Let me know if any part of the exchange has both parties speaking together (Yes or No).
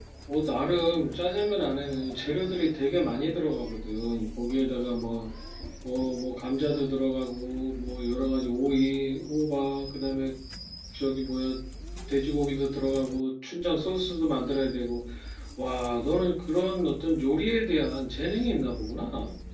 No